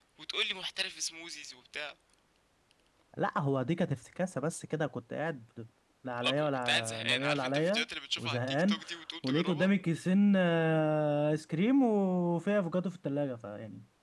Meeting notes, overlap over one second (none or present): present